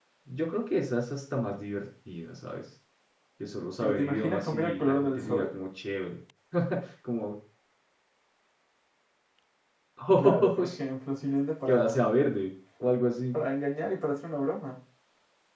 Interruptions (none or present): present